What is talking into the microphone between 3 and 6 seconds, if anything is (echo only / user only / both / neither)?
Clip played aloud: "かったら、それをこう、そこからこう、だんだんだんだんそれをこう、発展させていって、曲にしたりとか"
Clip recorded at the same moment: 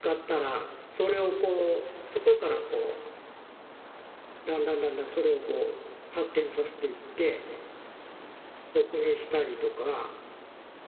echo only